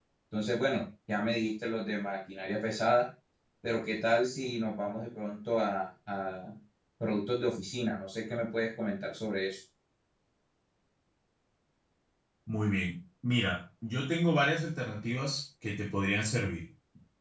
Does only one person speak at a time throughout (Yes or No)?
Yes